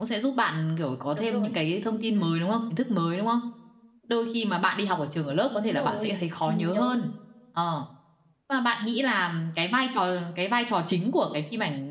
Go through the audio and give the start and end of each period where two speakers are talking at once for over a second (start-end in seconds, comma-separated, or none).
5.5-6.9